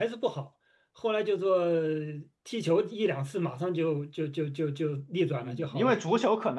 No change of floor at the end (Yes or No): No